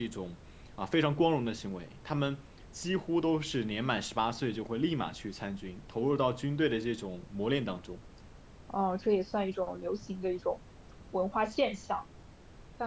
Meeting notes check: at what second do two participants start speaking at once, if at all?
none

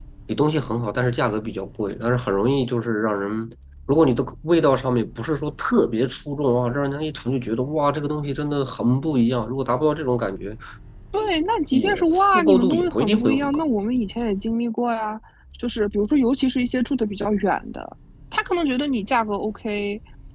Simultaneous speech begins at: 11.7 s

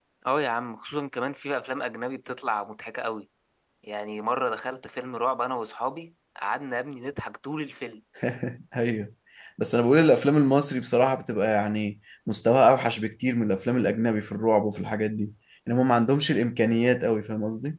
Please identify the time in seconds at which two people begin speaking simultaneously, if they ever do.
none

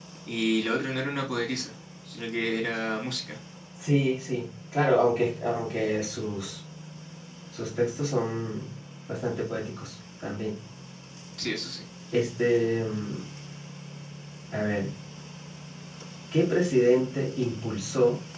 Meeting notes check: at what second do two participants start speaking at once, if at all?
none

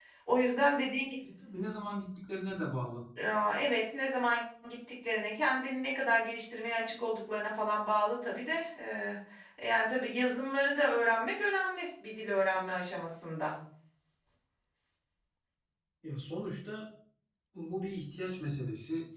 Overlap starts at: none

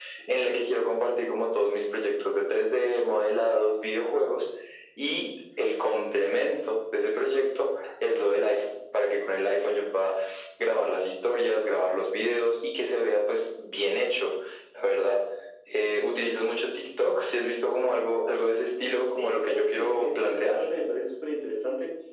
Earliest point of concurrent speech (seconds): 19.2 s

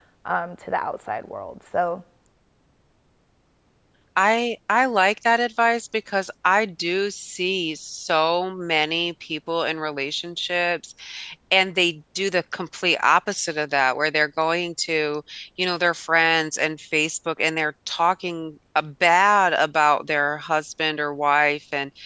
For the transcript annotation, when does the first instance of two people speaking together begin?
none

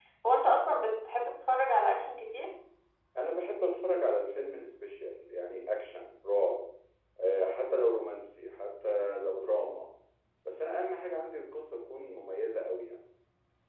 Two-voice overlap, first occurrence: none

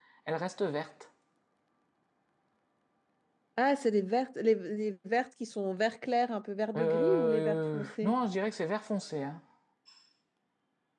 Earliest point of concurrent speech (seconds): 6.7 s

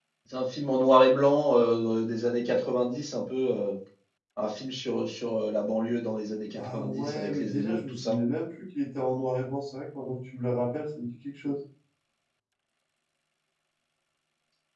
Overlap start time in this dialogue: 6.5 s

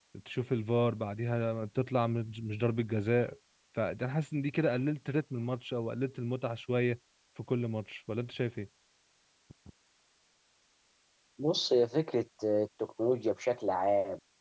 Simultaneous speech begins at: none

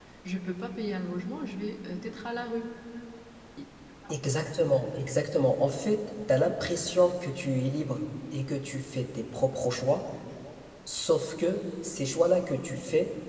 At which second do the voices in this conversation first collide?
none

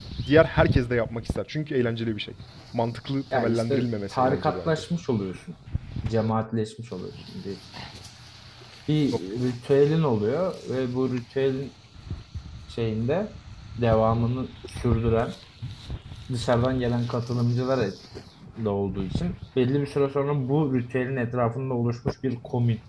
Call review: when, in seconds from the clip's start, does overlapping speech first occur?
3.3 s

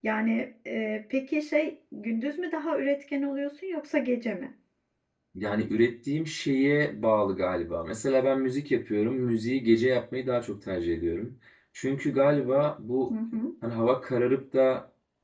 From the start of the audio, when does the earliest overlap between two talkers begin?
none

